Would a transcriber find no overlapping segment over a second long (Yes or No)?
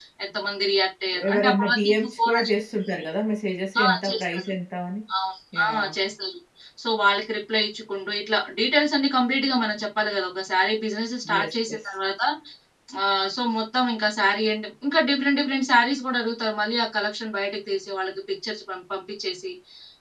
No